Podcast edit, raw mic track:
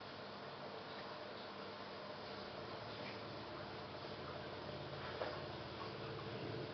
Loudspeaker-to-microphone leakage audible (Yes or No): No